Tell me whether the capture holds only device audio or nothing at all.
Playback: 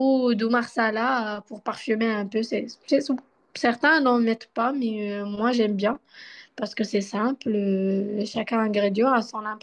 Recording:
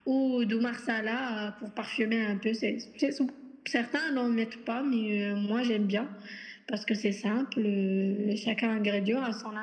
Yes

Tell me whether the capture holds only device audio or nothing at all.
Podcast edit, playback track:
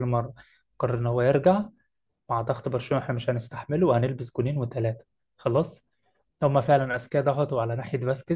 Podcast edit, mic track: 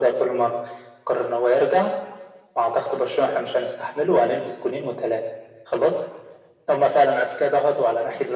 Yes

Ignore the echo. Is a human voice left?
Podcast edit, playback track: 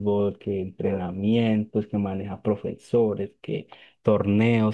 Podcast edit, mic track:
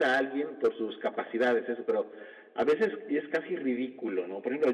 Yes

